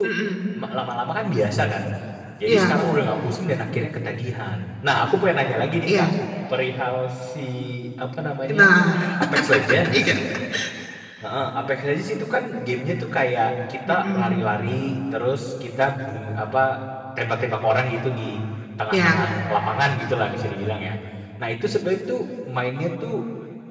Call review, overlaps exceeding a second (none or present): none